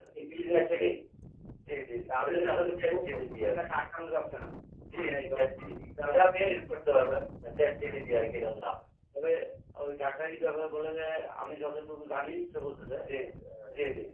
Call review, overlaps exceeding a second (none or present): present